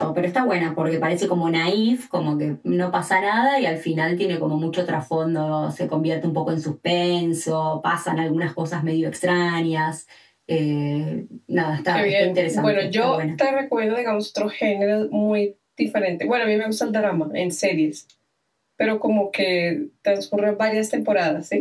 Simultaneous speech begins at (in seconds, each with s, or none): 11.9 s